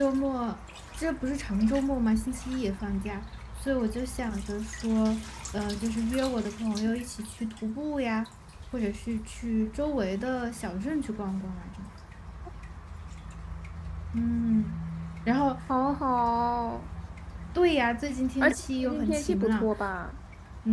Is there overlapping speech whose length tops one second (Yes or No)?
Yes